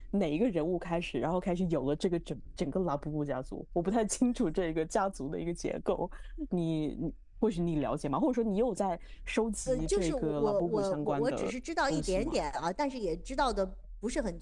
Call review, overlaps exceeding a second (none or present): present